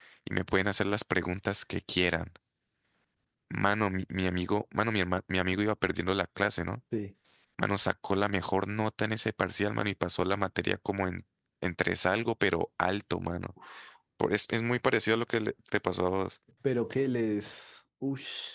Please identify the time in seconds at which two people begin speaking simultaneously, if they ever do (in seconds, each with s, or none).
none